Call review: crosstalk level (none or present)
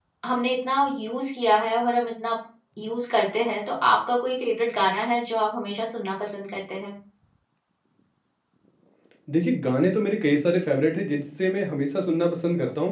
none